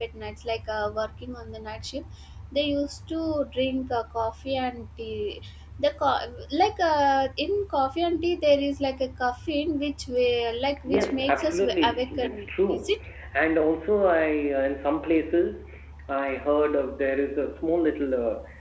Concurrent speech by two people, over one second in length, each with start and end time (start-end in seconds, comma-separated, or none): 10.9-13.0